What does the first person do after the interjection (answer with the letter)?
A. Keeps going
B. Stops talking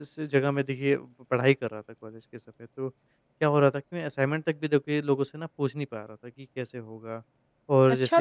B